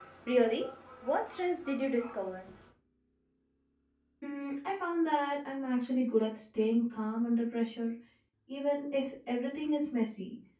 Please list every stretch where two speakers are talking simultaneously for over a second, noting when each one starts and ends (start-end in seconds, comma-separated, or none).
none